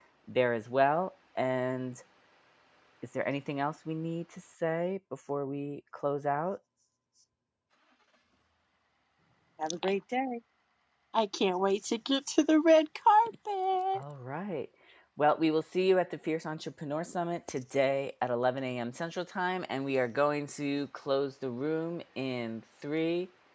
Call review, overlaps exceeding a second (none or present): none